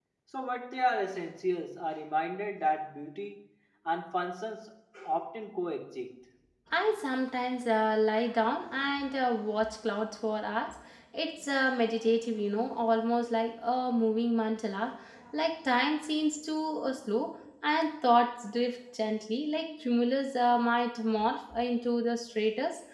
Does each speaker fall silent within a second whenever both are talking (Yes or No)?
Yes